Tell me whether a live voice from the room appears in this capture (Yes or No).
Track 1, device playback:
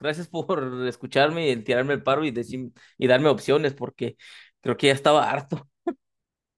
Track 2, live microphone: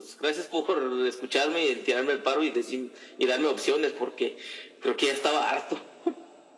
No